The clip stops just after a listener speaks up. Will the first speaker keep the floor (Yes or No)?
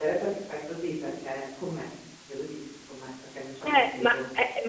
No